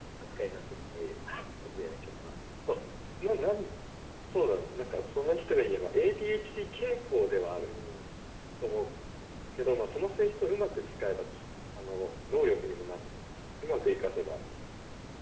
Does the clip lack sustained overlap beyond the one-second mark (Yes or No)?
Yes